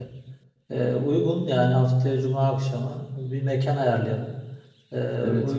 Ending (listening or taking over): listening